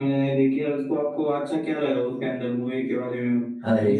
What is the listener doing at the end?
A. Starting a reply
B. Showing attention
A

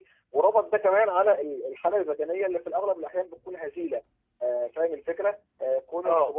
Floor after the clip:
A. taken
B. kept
B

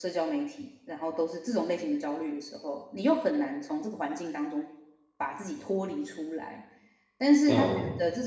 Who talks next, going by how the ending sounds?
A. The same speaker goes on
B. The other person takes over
A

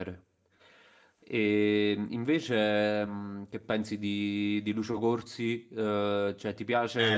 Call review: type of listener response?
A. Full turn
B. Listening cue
A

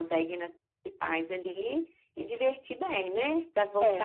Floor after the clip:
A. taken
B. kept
A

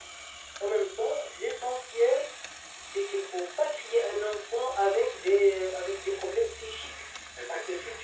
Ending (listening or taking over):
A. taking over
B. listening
B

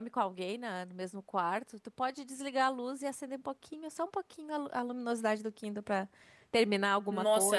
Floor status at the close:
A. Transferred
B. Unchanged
A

